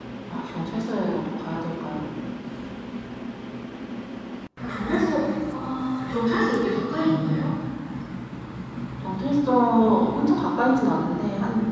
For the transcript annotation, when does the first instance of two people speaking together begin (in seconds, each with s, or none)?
none